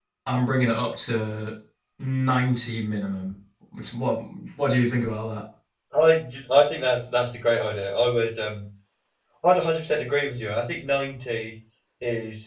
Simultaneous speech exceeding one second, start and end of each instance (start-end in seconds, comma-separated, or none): none